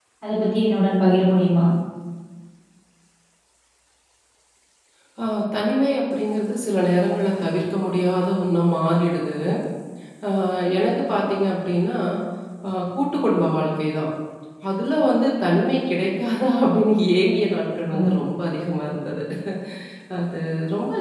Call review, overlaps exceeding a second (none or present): none